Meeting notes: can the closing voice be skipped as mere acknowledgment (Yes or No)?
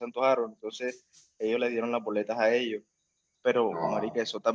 Yes